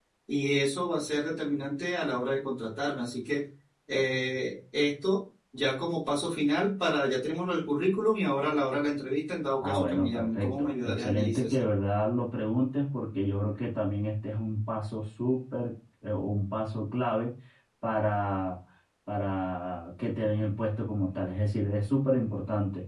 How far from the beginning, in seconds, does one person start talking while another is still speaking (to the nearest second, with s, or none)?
10 s